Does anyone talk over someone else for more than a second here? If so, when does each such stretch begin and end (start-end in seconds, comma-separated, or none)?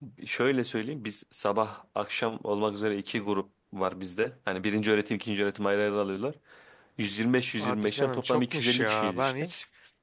7.6-9.5